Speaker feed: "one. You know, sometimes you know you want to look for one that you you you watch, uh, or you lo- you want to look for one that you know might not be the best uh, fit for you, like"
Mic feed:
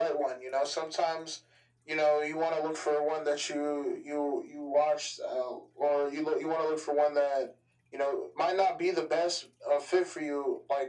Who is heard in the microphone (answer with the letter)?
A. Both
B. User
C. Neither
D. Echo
D